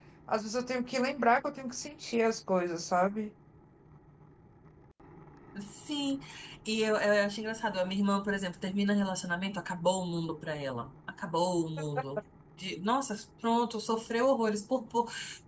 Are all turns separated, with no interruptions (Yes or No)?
Yes